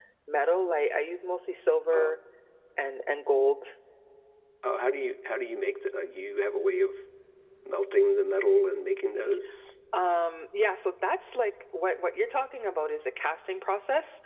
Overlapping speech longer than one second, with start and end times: none

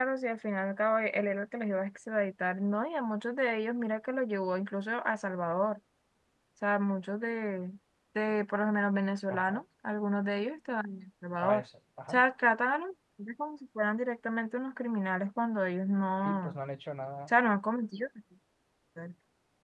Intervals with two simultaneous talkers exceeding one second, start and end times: none

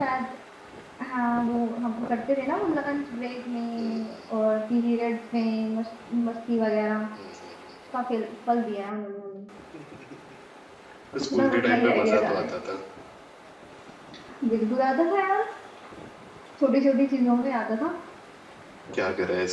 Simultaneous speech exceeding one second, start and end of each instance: 11.2-12.6

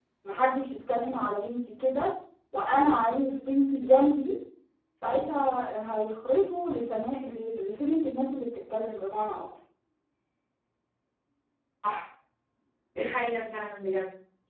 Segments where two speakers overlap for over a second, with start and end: none

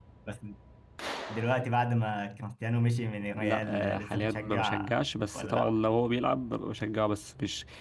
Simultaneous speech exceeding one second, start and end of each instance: 3.4-4.9

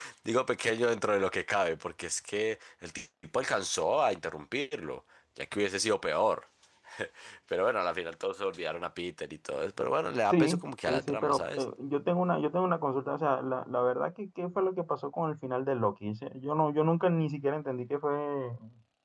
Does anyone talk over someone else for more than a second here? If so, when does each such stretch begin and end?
10.3-11.6

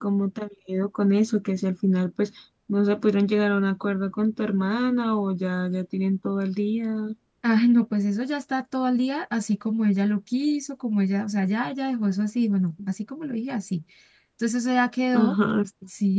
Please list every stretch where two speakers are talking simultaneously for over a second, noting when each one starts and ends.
none

